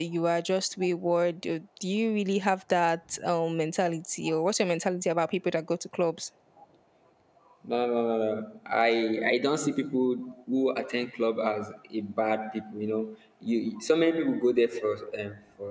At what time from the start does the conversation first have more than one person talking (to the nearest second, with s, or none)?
none